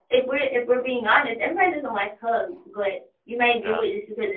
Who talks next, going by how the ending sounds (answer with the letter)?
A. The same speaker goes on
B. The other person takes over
A